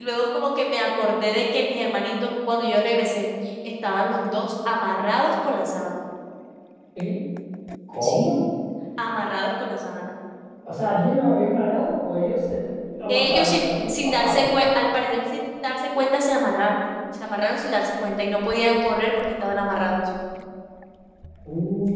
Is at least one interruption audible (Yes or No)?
Yes